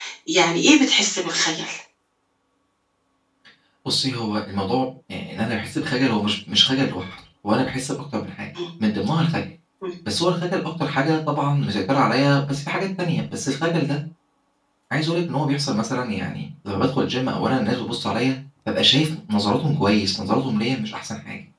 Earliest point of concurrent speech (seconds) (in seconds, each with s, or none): none